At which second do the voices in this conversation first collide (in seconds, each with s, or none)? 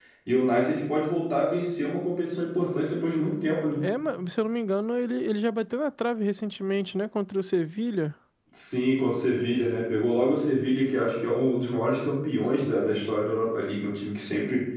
none